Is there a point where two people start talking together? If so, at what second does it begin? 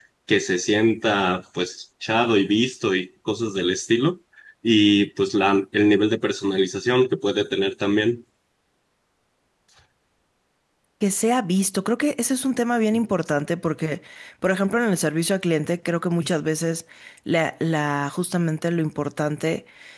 none

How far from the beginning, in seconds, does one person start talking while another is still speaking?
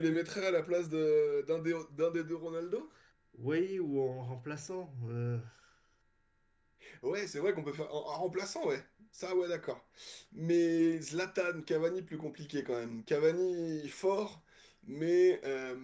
none

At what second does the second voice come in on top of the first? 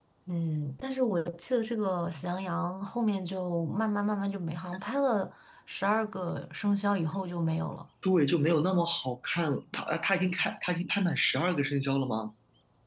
none

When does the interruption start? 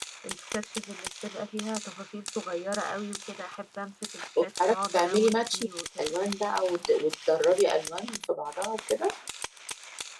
4.4 s

